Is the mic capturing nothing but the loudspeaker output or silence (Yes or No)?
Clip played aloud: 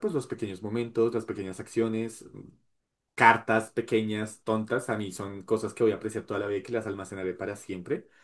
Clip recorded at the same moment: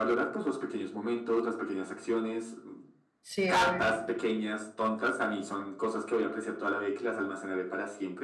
No